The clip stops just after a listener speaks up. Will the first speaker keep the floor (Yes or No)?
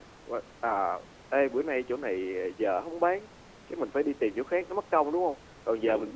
Yes